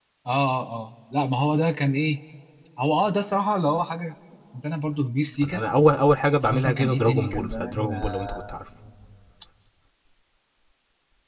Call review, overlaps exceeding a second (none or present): present